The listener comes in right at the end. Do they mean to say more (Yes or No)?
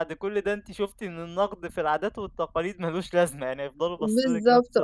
Yes